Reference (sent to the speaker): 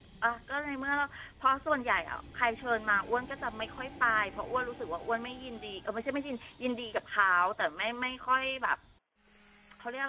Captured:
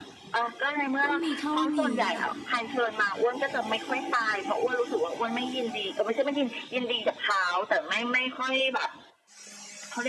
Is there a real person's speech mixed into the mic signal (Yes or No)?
Yes